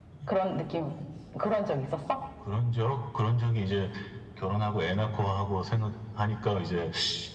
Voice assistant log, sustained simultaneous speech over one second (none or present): none